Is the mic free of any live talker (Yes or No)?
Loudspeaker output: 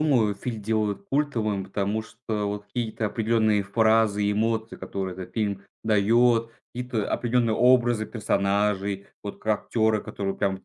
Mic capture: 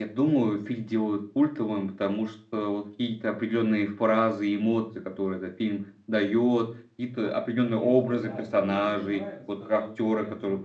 No